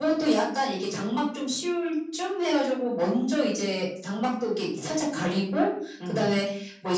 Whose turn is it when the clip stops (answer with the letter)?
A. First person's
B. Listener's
A